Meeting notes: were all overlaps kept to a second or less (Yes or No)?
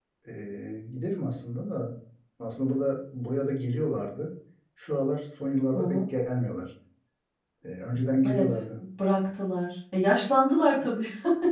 Yes